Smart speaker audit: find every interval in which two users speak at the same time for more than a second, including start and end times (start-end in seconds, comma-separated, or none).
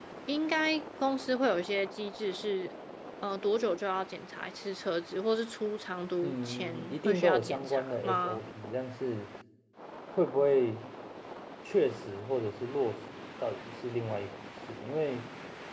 6.2-8.4